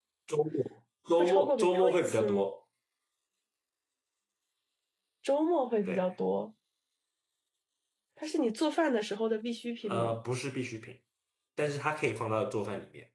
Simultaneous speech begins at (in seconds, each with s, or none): 1.2 s